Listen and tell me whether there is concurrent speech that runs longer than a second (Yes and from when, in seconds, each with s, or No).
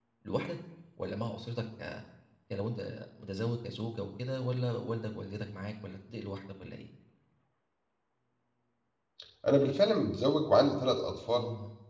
No